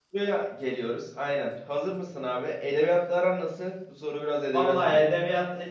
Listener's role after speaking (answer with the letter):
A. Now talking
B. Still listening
A